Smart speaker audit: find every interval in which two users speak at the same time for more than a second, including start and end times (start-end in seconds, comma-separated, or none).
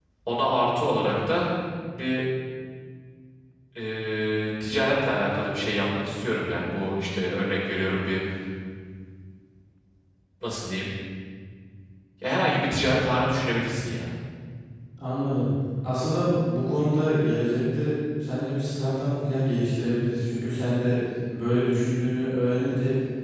none